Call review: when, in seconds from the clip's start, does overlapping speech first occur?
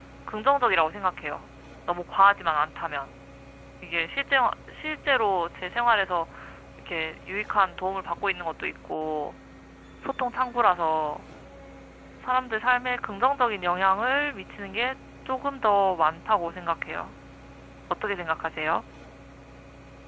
none

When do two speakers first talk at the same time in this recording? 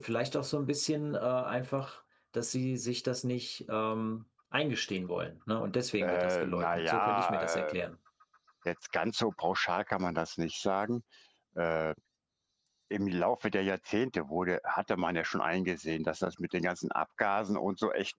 6.0 s

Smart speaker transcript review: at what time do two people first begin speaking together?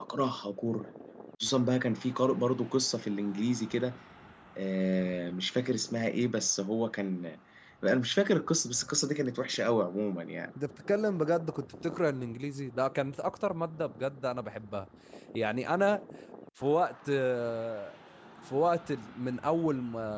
none

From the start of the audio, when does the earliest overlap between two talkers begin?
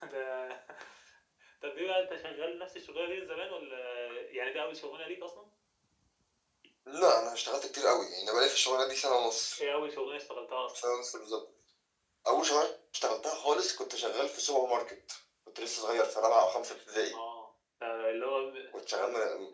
none

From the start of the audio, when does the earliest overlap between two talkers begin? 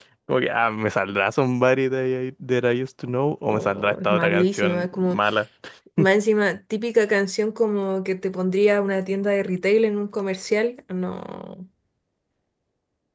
3.5 s

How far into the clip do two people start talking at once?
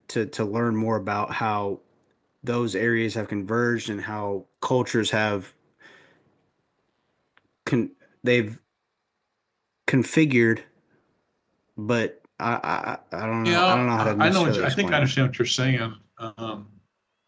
13.4 s

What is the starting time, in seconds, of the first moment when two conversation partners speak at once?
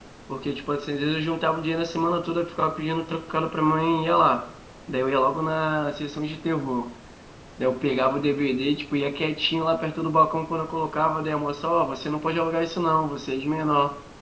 none

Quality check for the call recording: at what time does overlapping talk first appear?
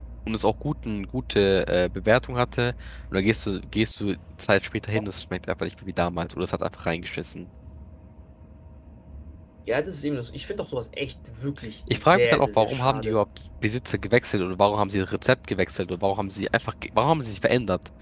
11.9 s

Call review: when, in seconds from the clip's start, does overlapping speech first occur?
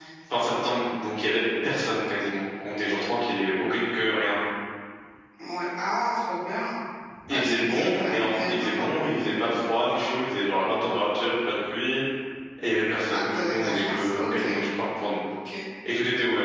7.3 s

